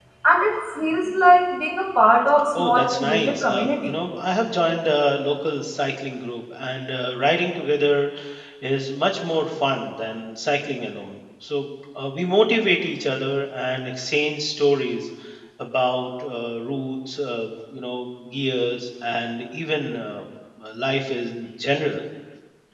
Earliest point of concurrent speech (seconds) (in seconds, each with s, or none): 2.5 s